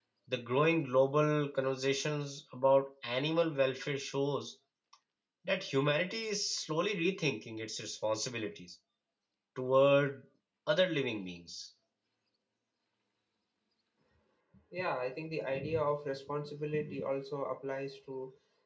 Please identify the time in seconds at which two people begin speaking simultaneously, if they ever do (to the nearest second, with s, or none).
none